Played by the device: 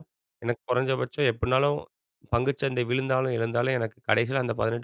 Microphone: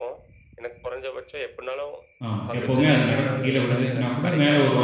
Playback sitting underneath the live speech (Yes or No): Yes